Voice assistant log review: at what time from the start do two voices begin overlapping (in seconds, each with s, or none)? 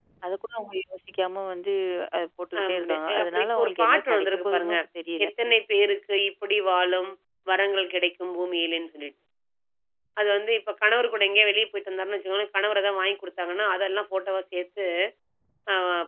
2.6 s